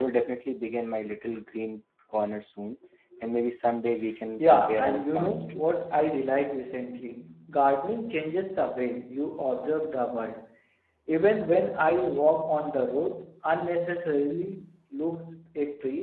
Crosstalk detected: Yes, from 4.4 s

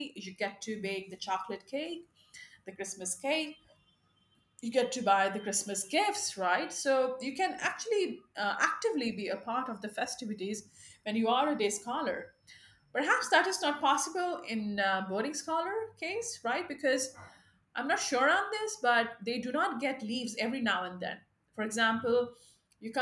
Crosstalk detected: No

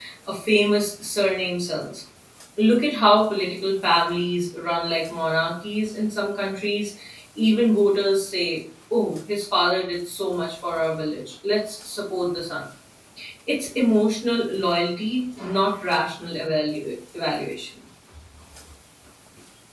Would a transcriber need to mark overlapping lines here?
No

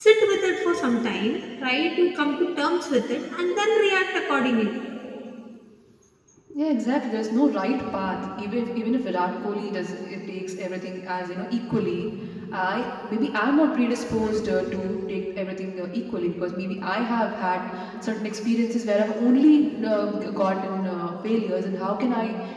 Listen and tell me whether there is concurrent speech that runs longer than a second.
No

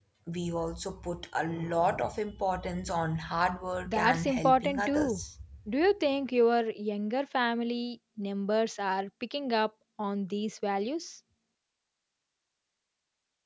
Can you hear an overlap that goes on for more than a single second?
Yes, from 3.9 s

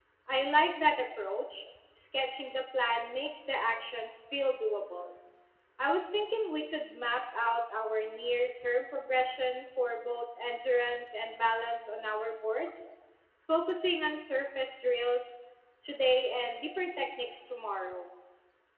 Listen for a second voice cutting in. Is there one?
No

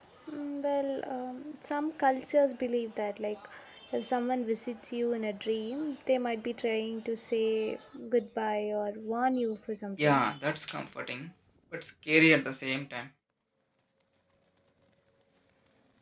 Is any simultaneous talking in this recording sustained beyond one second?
No

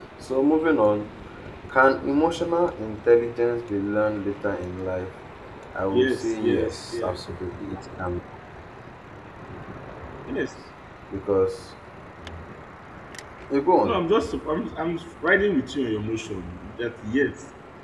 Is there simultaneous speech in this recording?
Yes, from 5.9 s

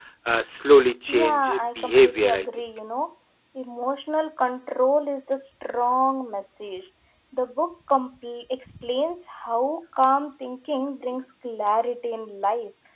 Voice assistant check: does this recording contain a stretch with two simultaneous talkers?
Yes, from 1.1 s

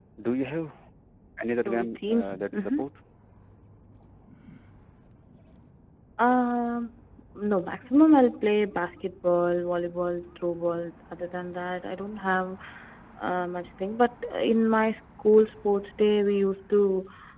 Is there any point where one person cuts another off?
Yes, from 1.6 s

